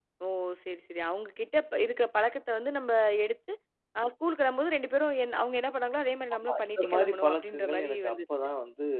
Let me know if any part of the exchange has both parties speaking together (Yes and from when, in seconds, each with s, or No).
Yes, from 6.3 s